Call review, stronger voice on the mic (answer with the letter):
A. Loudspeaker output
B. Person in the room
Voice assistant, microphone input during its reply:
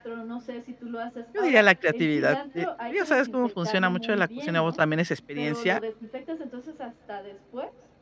B